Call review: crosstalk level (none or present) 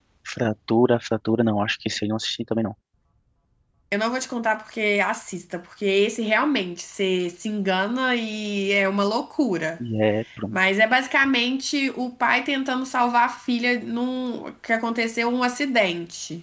none